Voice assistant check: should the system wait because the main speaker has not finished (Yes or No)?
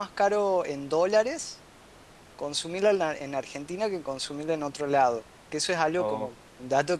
Yes